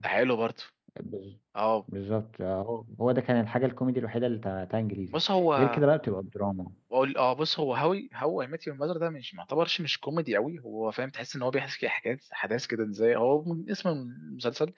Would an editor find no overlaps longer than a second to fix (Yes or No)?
Yes